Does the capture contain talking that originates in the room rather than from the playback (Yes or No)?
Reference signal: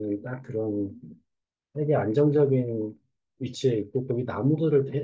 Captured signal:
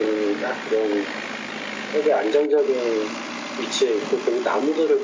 No